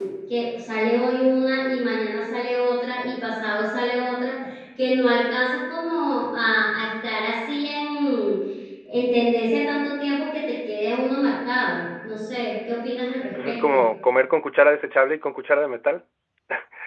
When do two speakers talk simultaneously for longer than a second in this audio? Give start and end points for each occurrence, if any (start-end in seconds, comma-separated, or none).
none